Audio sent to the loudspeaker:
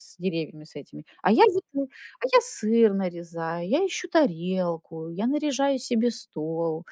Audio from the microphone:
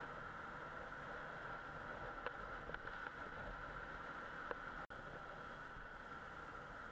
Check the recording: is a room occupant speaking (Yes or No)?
No